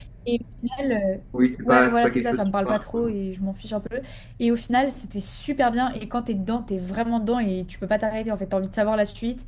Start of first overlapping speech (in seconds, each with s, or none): 1.6 s